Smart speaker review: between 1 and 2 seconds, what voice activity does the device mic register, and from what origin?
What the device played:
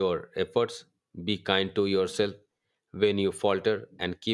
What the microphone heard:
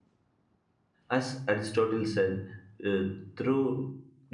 user only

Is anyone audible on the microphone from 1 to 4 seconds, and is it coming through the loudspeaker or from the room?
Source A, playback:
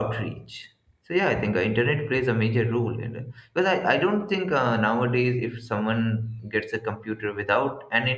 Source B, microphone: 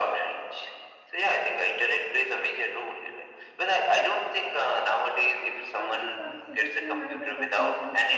echo only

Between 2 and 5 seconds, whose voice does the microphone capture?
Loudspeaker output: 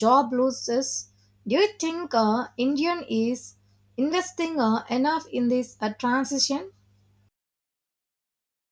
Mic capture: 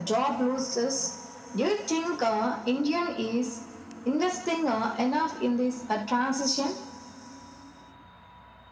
echo only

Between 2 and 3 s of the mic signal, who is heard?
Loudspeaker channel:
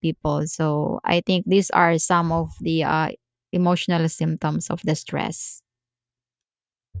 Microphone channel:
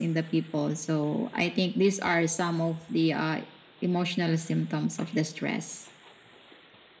echo only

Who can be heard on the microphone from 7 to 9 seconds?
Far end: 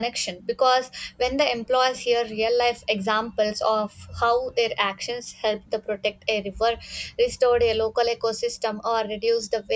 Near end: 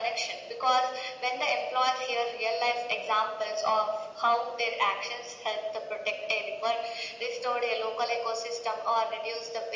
echo only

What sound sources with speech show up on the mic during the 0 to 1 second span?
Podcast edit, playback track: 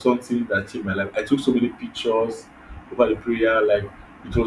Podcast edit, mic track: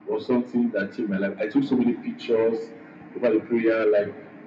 echo only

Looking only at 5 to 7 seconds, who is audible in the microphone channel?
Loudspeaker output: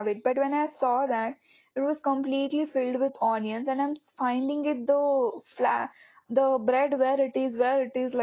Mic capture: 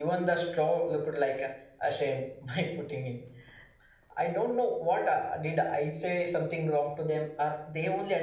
user only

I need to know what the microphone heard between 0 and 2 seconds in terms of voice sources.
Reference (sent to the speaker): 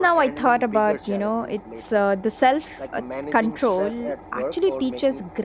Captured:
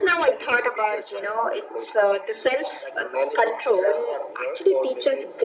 echo only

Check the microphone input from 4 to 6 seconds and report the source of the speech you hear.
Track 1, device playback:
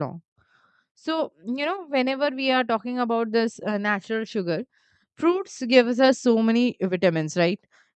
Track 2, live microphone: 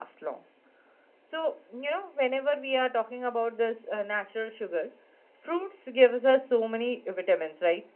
echo only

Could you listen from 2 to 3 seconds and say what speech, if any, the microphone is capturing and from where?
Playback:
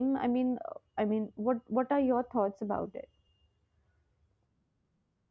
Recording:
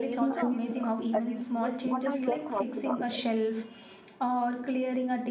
both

